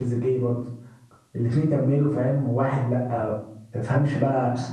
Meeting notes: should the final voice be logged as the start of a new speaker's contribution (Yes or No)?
No